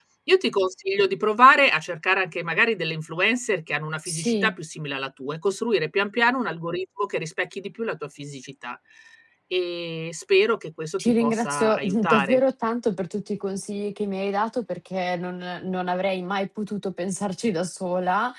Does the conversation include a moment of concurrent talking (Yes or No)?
Yes